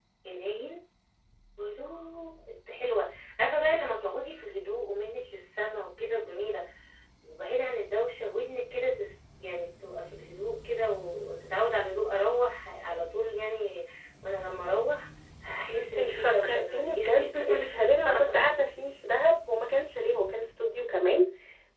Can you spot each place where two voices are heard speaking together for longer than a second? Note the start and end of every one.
15.7-18.4

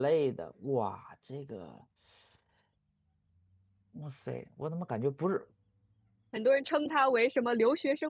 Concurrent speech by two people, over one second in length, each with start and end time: none

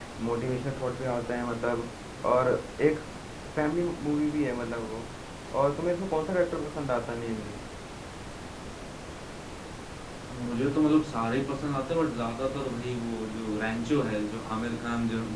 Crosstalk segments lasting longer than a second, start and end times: none

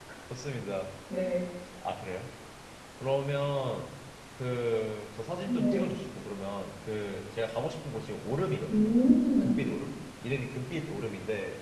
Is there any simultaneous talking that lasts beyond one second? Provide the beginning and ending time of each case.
none

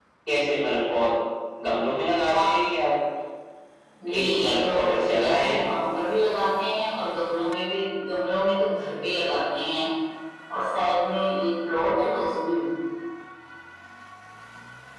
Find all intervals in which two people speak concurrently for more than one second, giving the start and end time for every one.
4.1-5.6

